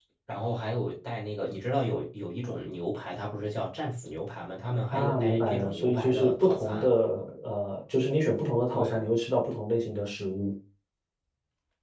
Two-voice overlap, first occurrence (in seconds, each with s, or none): 4.9 s